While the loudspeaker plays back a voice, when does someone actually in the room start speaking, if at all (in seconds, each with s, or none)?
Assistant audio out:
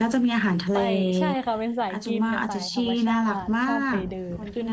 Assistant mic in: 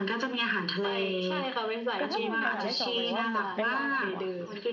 1.9 s